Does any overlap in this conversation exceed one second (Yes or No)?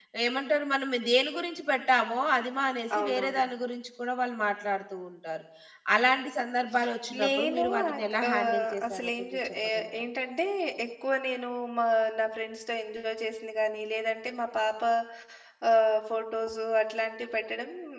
Yes